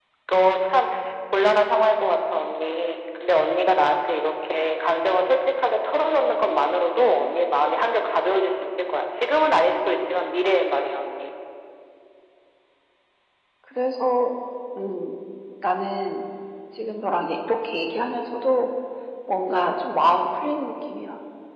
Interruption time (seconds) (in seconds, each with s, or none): none